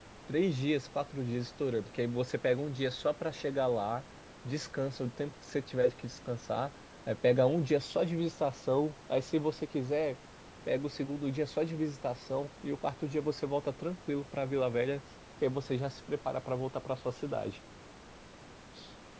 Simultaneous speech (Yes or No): No